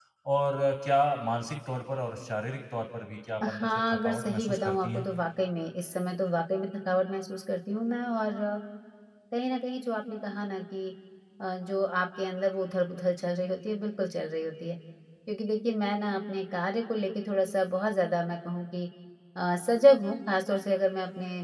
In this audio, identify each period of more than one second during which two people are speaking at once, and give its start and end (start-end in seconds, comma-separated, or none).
3.4-5.1